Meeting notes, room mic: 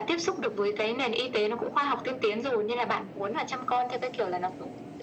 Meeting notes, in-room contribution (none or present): none